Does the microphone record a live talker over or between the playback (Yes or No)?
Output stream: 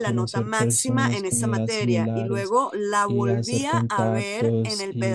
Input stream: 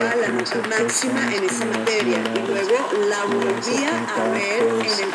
No